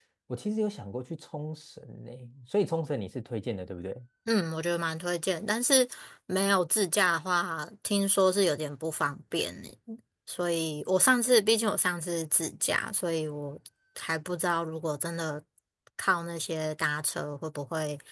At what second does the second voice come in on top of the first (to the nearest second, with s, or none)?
none